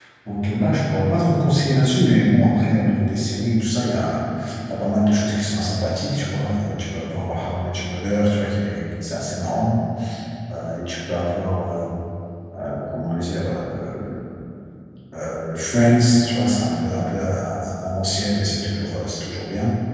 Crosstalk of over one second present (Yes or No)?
No